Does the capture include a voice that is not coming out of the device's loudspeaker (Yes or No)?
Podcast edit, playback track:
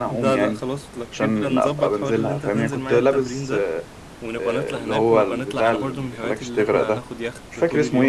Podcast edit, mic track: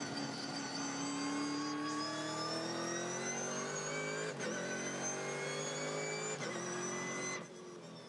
No